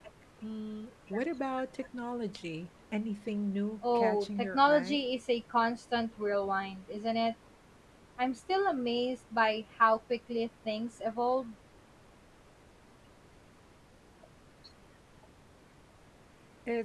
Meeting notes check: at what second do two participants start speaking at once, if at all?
4 s

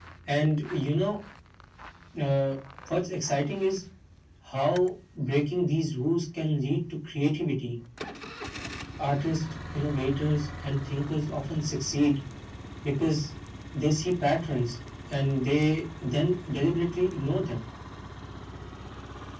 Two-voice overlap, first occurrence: none

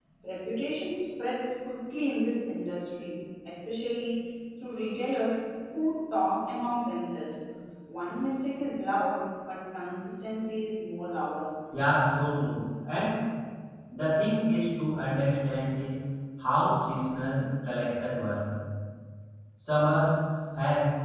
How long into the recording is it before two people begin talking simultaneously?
none

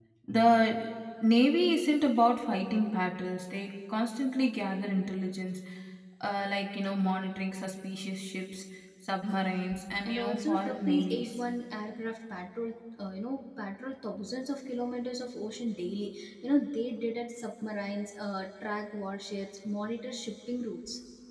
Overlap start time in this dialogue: 10 s

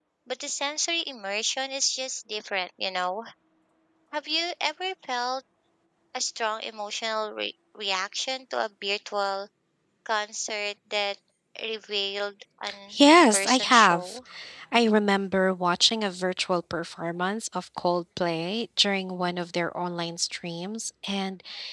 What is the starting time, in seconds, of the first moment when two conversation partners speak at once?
13 s

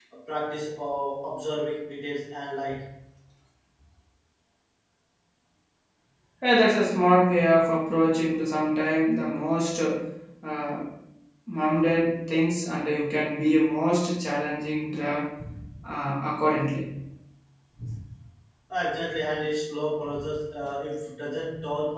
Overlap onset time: none

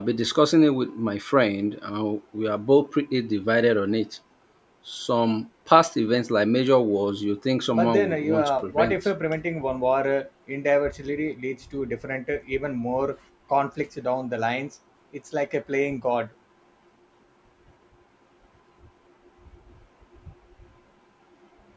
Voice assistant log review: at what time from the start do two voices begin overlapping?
8 s

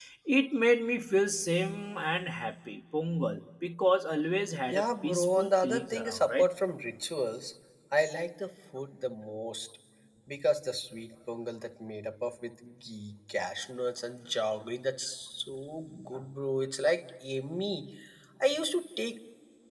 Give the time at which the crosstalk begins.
5 s

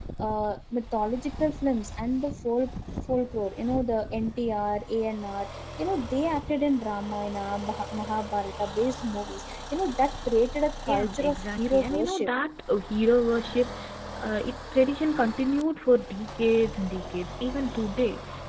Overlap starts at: 11 s

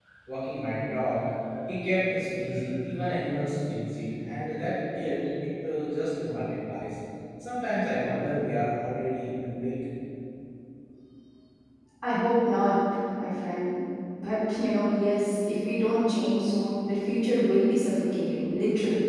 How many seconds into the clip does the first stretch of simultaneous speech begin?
none

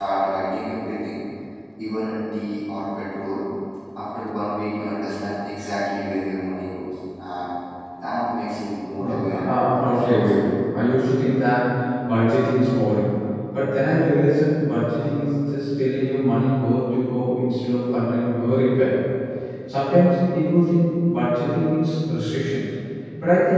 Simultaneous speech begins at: 9 s

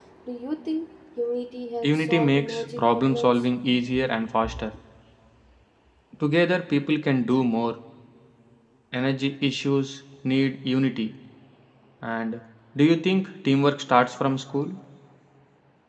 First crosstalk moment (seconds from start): 2 s

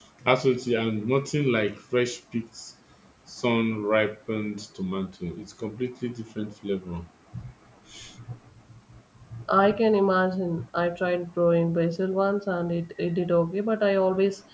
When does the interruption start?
none

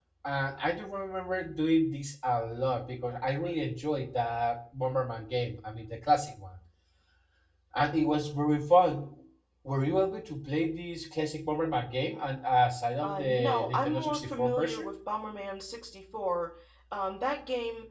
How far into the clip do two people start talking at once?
13 s

